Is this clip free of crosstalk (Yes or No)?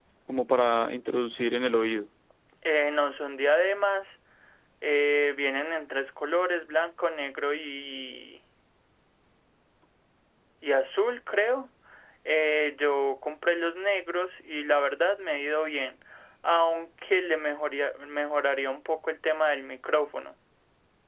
Yes